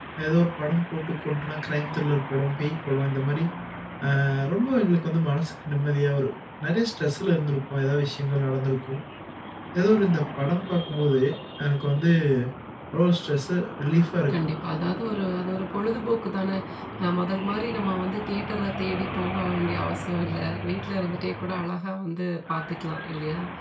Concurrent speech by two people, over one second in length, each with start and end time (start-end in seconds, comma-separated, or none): none